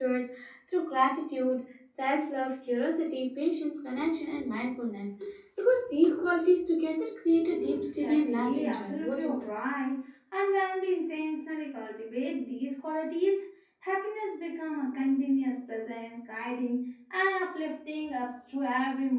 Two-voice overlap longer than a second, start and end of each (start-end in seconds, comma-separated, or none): 7.7-9.5